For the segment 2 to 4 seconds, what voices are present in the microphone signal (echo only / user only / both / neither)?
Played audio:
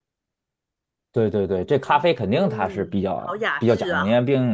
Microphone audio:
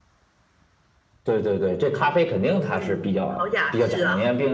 echo only